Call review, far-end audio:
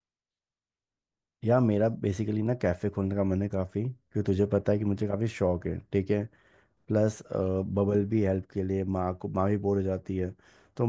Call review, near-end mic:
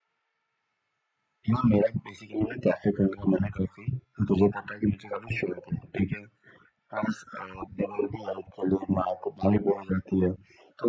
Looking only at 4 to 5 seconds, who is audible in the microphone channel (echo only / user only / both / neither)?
echo only